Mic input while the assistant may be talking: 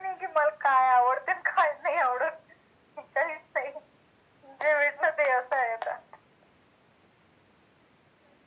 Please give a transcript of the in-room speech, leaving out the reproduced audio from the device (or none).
none